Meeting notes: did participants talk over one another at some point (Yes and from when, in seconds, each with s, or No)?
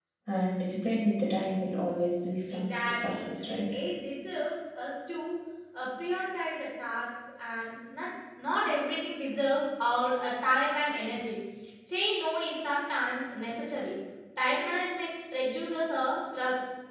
Yes, from 2.5 s